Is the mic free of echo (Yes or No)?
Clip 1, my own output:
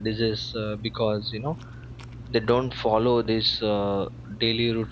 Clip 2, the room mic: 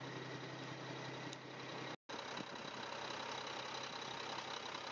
Yes